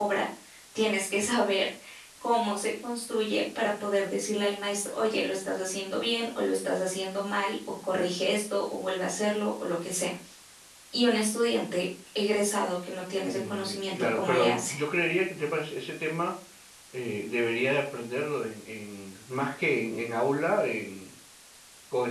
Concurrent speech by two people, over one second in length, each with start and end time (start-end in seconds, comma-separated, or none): 13.2-14.7